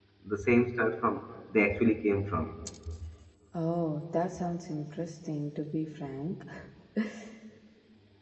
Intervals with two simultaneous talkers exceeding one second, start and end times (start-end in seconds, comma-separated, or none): none